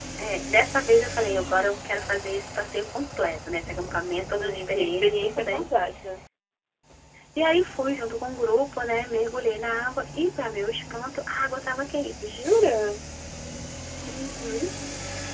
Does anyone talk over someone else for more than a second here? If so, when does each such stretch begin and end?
4.3-5.6

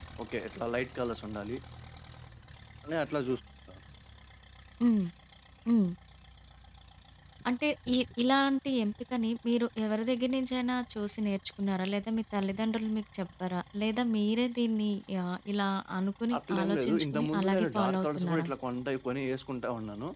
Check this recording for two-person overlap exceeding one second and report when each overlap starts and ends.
16.4-18.5

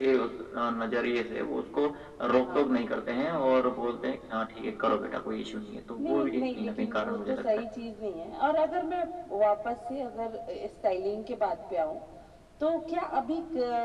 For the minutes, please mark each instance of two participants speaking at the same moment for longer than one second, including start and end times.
6.0-7.5

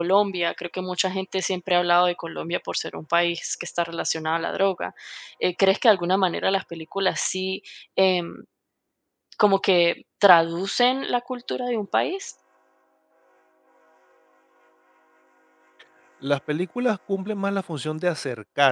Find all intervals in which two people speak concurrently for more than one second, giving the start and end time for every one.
none

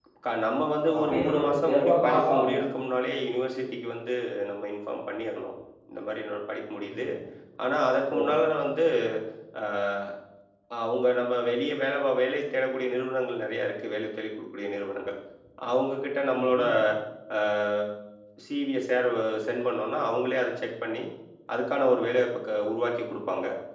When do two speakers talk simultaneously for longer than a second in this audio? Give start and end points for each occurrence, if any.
1.0-2.6

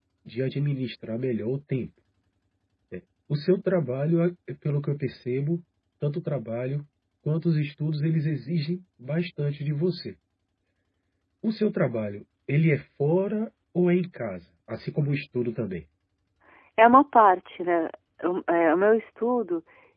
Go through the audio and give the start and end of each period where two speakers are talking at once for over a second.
none

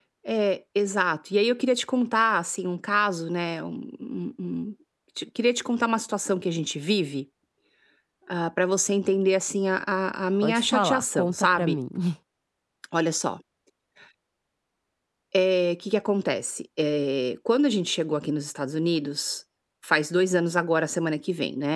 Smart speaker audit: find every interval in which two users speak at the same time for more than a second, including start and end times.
10.4-11.8

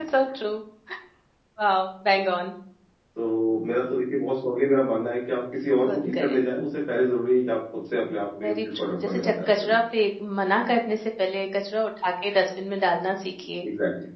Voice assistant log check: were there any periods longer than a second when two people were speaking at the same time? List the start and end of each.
8.4-9.7

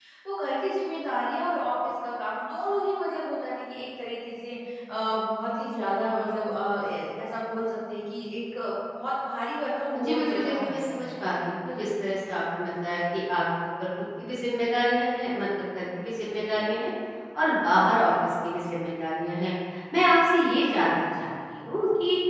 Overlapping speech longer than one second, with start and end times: 10.0-11.2

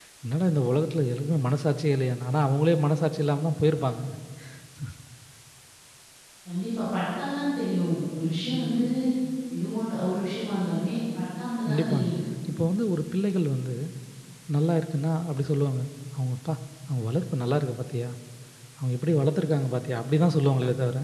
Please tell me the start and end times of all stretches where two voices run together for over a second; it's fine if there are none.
none

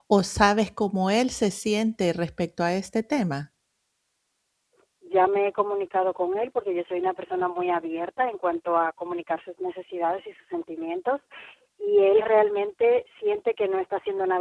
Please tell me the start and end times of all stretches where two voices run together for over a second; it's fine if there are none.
none

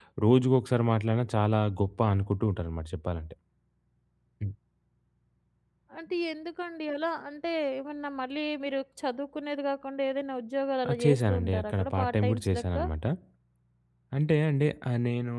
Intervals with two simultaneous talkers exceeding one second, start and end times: 10.9-12.9

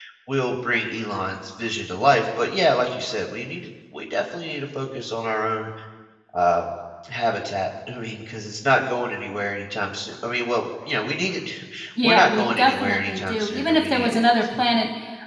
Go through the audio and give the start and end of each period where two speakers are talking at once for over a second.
12.0-14.2

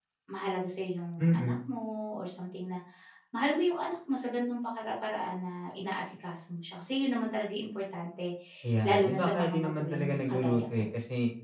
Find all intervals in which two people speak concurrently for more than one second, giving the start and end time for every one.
8.9-10.8

